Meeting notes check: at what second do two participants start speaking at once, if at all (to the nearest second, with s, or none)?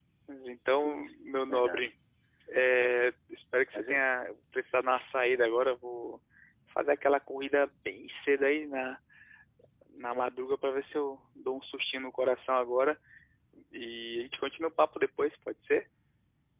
1 s